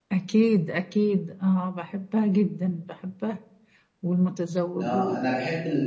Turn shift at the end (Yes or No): Yes